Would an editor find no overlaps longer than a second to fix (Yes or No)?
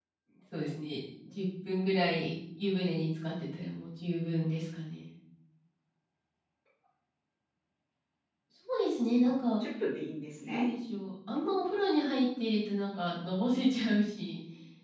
Yes